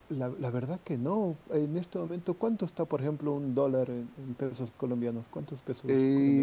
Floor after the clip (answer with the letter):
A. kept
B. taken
B